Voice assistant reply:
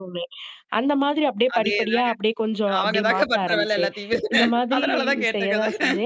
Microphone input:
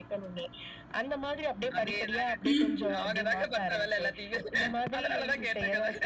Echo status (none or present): present